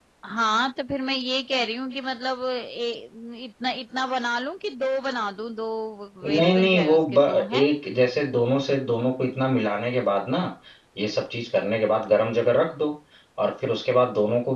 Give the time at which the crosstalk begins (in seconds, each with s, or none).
6.2 s